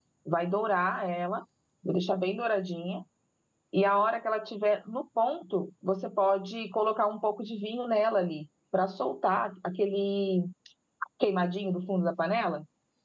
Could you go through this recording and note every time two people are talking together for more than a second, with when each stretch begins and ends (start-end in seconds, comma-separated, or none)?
none